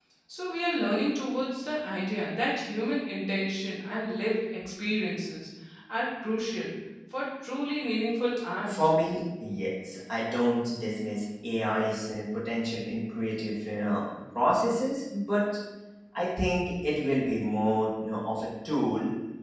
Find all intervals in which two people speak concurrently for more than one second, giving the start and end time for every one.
none

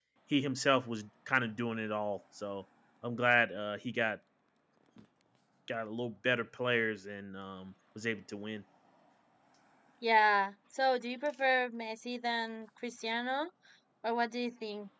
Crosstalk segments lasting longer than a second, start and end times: none

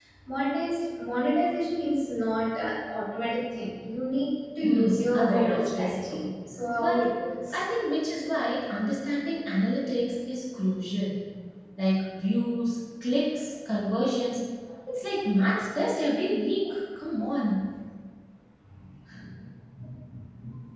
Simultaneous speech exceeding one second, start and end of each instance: 4.6-6.2

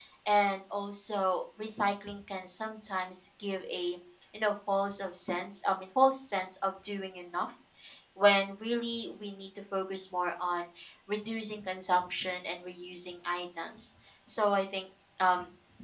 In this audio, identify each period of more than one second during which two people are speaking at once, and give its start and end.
none

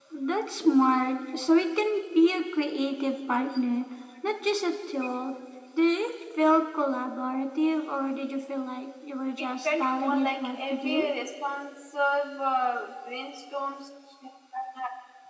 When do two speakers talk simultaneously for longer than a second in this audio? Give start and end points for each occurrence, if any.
9.6-11.1

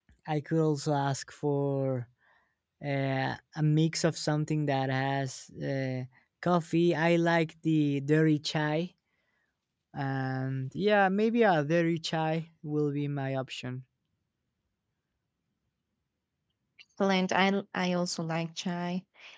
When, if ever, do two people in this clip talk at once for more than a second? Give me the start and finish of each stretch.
none

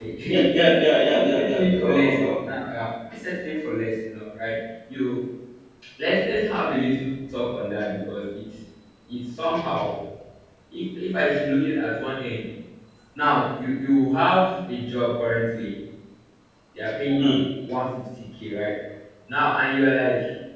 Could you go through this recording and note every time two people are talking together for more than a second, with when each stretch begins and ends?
1.1-2.5

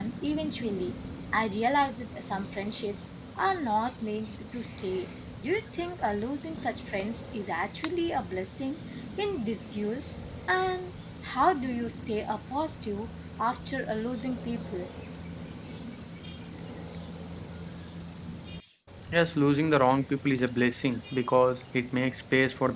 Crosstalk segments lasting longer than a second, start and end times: none

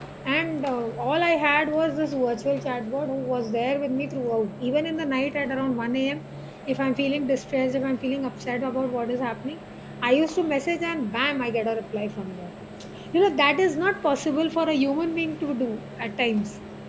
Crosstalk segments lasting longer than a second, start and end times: none

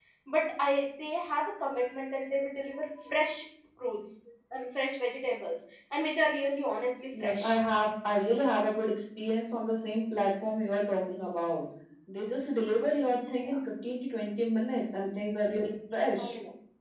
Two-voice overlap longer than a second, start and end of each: none

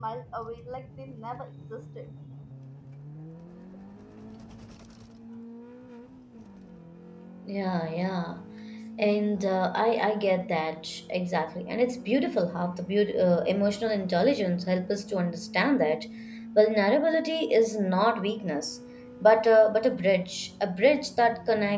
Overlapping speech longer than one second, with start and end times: none

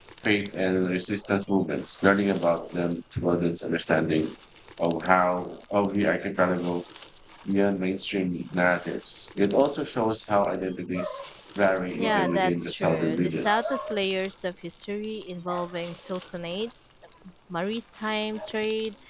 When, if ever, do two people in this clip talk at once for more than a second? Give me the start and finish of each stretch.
11.9-13.8

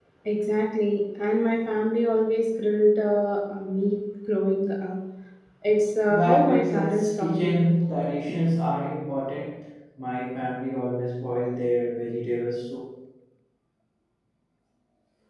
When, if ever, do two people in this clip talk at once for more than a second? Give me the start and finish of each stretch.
6.1-7.9

